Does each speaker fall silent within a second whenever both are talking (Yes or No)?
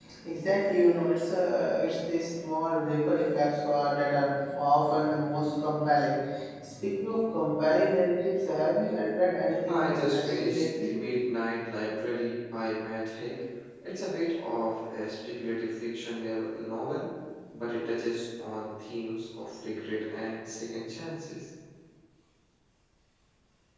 No